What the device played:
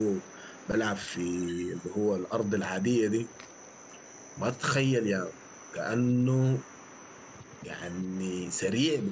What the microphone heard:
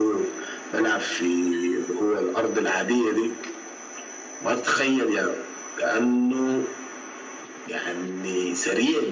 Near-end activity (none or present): none